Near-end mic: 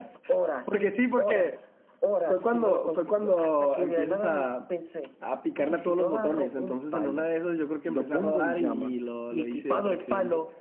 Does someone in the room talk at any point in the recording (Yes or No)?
Yes